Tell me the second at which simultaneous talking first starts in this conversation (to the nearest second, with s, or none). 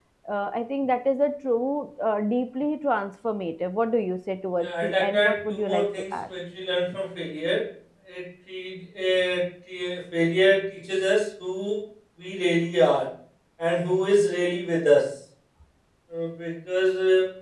5 s